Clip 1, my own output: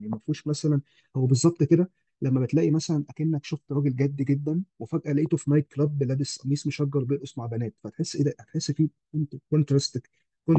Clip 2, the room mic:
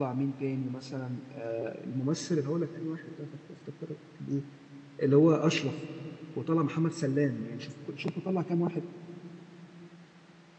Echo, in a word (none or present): none